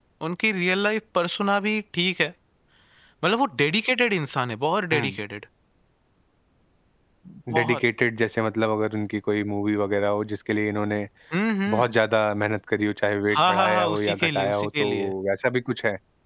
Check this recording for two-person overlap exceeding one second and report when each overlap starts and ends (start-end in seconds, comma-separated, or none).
13.4-14.9